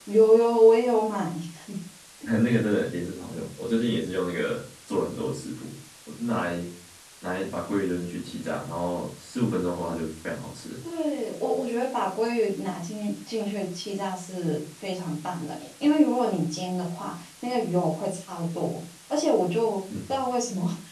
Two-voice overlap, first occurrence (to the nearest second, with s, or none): none